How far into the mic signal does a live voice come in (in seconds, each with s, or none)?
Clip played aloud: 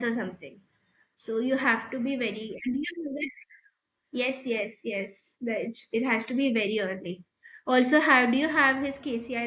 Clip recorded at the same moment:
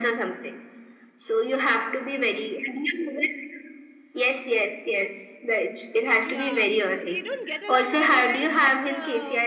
6.2 s